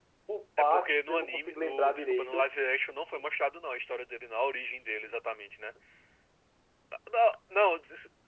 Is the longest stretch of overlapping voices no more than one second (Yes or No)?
No